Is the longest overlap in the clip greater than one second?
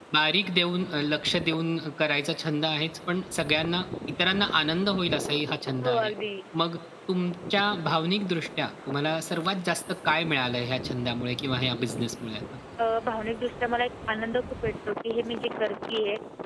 No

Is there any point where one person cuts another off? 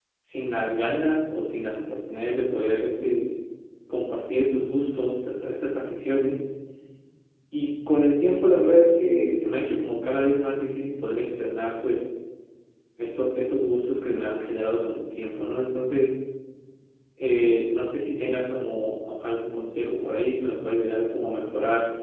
No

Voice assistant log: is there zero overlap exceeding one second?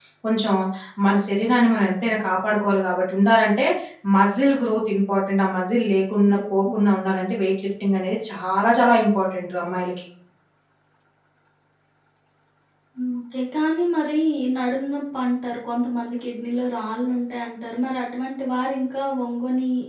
Yes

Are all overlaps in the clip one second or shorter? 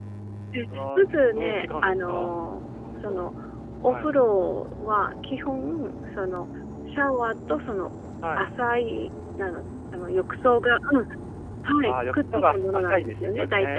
No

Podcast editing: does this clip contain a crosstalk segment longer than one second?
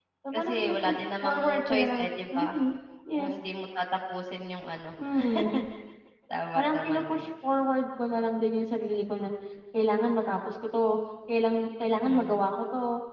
Yes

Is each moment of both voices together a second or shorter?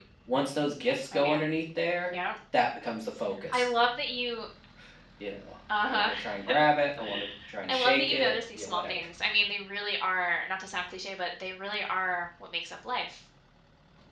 No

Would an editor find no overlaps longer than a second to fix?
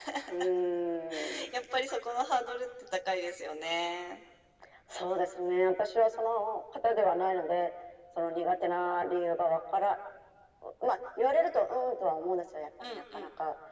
Yes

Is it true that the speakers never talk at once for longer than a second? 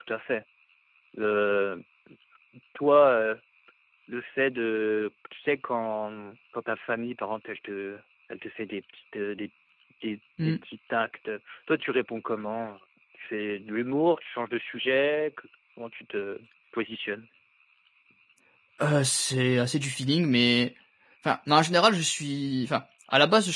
Yes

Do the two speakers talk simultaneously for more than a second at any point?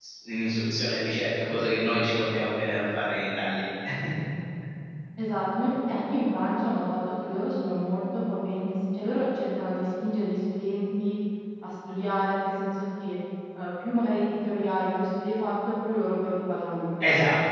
No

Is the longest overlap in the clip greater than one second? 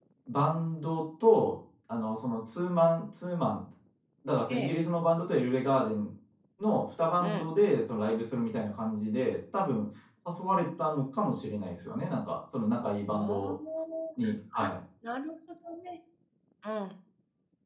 No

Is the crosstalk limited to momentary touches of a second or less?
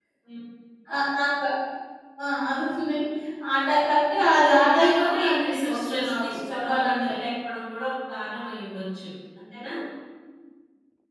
No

